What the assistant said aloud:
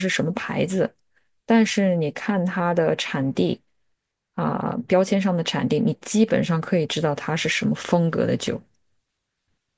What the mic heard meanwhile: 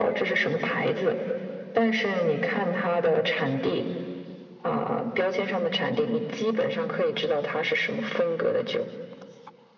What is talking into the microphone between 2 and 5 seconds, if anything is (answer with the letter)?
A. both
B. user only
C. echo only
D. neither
C